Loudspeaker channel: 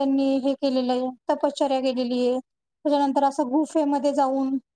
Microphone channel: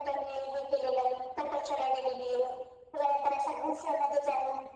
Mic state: echo only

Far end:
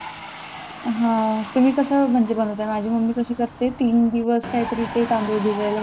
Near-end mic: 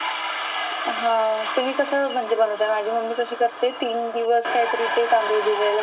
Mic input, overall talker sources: echo only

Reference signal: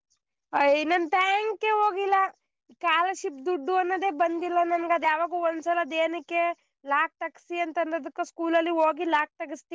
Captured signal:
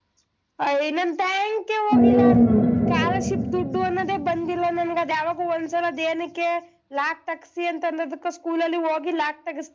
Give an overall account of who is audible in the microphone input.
both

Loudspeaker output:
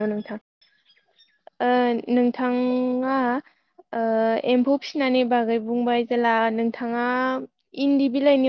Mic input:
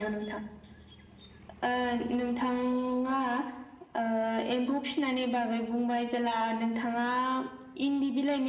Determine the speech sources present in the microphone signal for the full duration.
echo only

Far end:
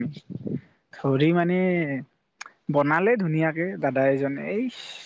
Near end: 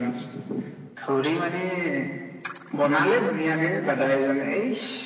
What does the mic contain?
echo only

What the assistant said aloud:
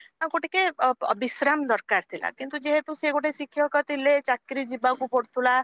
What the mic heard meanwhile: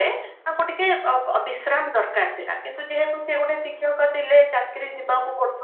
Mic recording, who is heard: echo only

